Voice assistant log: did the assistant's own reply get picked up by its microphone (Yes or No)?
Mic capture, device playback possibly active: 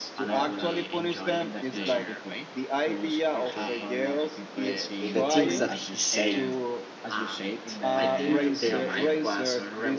Yes